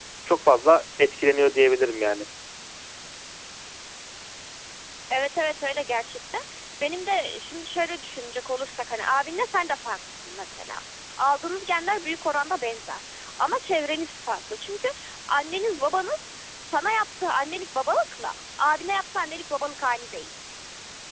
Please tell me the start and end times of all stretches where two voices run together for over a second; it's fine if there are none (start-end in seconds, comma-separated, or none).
none